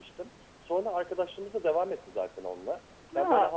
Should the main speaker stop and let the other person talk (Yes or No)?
No